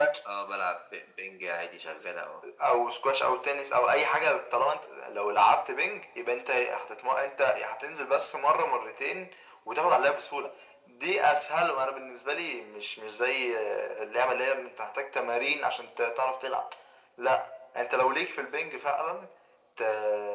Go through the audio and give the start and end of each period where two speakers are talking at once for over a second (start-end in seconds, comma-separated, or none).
none